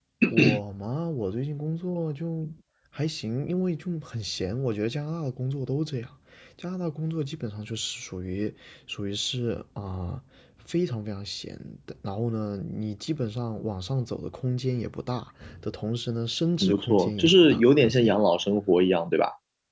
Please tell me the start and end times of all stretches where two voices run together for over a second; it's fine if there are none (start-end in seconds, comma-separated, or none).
16.6-18.1